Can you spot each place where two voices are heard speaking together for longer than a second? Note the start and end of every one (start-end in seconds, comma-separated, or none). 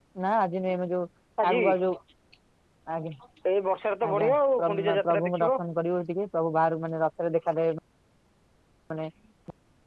4.1-5.5